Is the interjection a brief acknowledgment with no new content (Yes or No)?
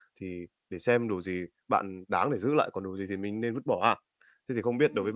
Yes